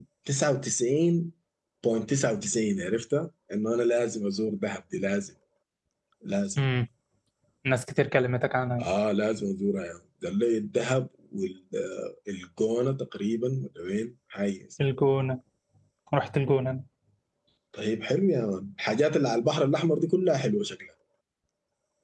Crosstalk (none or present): none